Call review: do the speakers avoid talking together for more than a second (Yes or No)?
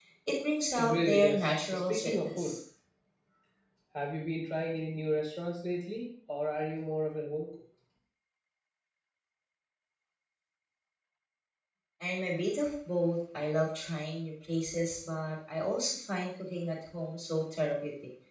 No